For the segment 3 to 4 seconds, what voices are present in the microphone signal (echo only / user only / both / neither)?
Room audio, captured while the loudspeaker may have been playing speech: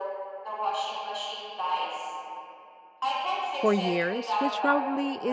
both